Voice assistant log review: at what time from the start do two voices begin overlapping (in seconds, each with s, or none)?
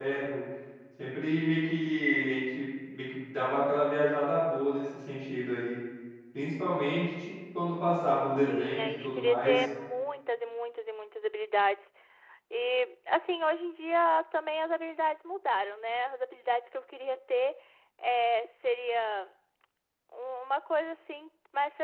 8.3 s